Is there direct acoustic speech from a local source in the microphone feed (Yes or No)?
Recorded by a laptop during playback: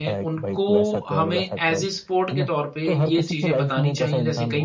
Yes